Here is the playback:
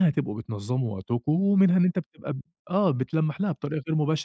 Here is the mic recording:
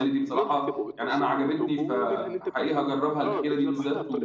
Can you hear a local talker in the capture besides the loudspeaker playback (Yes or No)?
Yes